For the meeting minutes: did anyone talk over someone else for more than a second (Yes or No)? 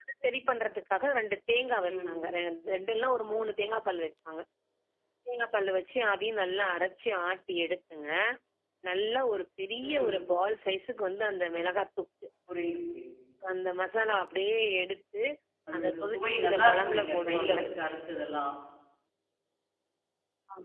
Yes